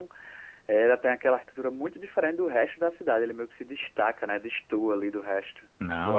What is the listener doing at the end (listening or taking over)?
taking over